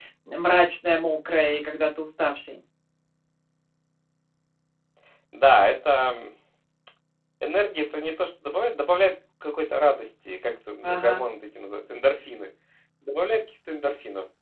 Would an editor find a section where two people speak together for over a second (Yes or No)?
No